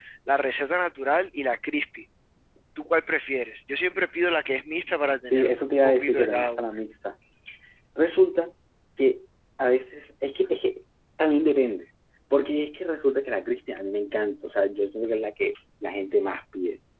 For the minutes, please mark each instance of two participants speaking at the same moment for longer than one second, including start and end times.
5.3-6.8

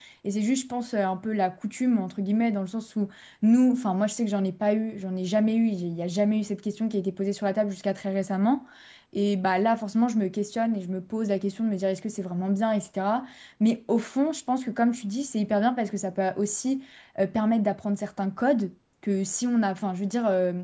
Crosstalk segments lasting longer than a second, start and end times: none

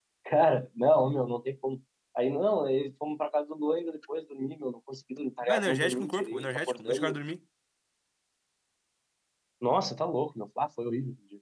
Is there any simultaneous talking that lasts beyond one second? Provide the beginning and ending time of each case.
5.4-7.2

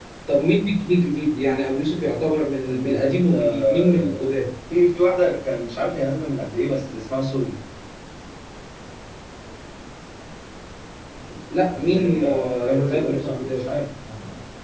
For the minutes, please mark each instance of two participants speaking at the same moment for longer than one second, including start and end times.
2.6-4.4, 11.8-13.7

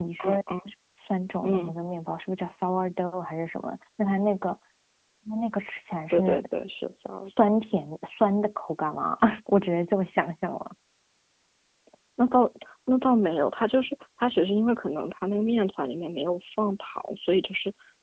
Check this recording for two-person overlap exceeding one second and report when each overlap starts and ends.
none

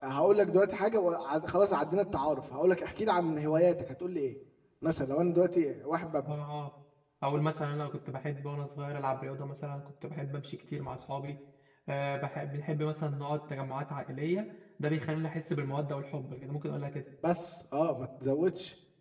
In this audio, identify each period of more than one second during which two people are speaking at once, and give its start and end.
none

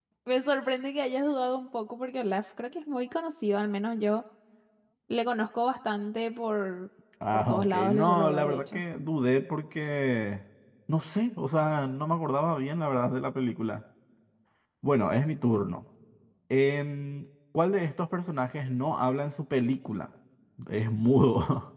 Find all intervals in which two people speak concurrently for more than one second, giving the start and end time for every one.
7.3-8.8

